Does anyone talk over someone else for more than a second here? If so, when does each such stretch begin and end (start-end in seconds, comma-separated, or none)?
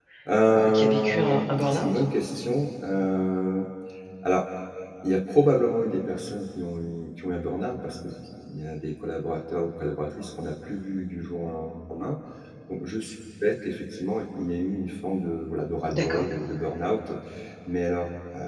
0.6-1.9